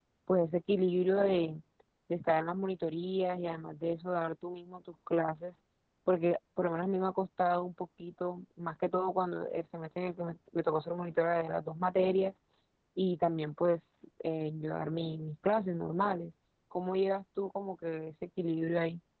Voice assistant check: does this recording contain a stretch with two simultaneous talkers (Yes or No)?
No